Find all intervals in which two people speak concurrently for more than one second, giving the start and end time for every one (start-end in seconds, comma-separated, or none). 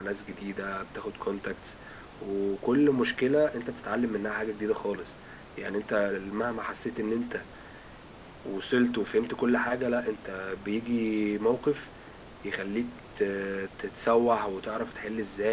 none